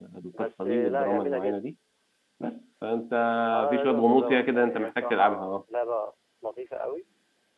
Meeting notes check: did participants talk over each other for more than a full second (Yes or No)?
Yes